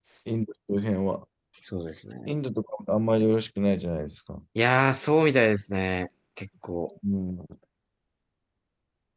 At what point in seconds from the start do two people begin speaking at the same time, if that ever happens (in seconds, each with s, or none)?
none